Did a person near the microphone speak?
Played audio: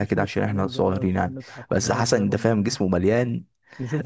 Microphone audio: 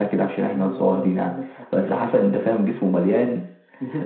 No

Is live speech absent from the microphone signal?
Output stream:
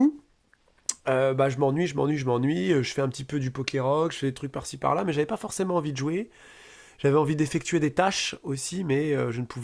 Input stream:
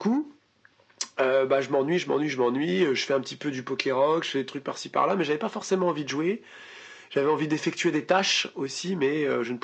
Yes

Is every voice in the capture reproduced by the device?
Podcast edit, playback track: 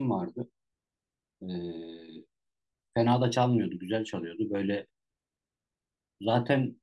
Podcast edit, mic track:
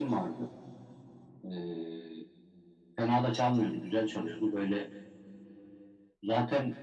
Yes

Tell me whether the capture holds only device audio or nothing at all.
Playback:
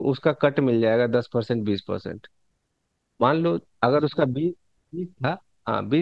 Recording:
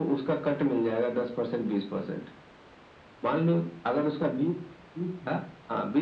Yes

